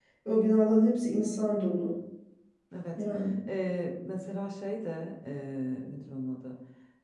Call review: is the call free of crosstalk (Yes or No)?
Yes